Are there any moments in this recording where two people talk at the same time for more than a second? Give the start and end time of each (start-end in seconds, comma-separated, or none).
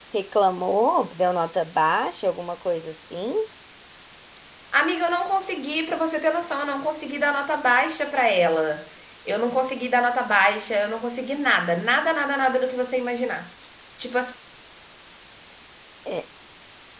none